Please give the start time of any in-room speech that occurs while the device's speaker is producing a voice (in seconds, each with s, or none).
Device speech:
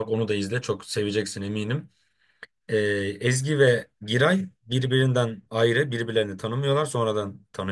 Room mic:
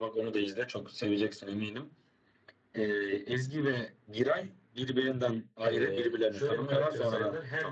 5.6 s